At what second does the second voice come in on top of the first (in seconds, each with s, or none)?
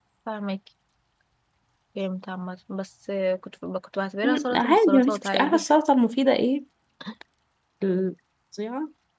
4.2 s